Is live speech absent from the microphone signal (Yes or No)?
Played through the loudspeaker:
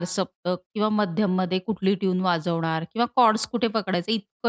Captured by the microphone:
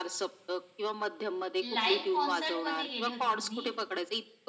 No